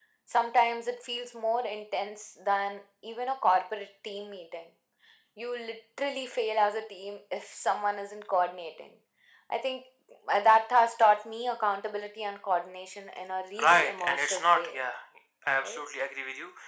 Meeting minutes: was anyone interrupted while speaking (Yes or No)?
Yes